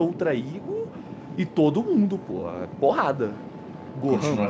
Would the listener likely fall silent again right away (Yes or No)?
No